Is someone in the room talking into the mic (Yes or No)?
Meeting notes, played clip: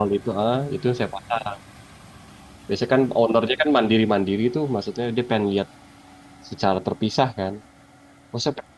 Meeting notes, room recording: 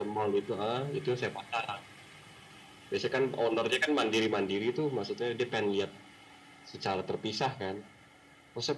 No